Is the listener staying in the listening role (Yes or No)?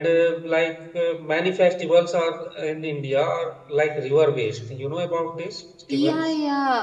No